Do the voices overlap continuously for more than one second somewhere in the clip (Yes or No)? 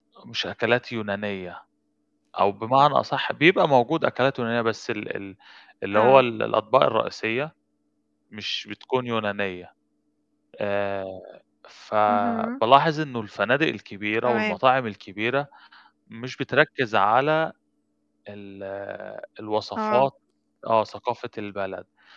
No